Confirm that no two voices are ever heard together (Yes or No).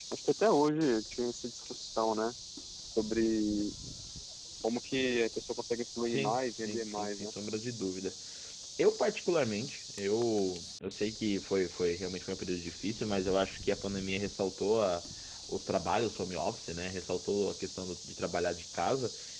No